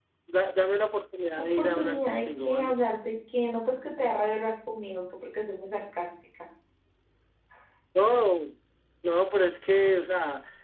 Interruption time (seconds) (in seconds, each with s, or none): 1.4 s